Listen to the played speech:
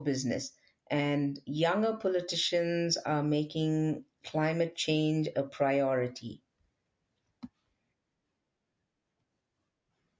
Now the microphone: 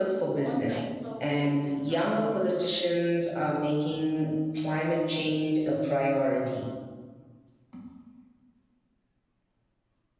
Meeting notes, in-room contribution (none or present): present